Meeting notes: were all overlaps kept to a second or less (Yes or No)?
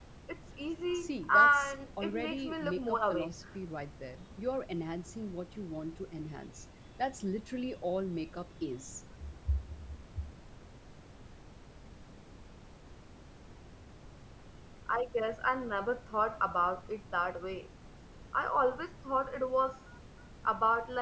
No